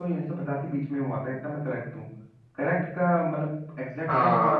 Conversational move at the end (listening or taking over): taking over